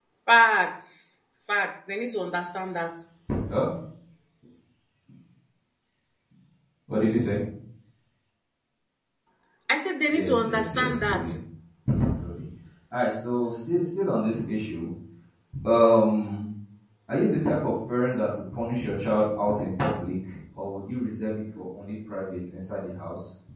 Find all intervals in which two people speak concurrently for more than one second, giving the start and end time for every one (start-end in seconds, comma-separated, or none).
10.1-11.4